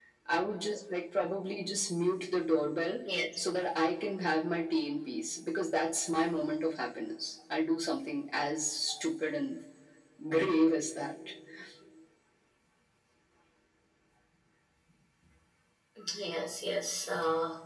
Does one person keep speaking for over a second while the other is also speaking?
No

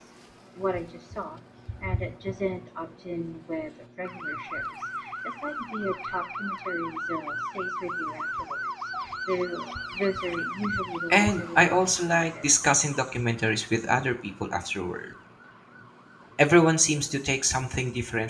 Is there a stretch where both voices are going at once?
Yes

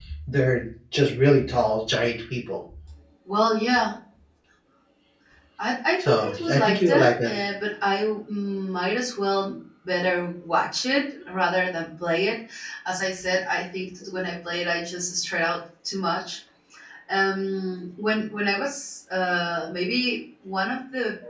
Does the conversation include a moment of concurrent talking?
Yes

